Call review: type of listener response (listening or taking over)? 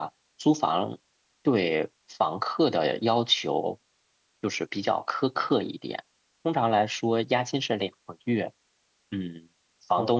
listening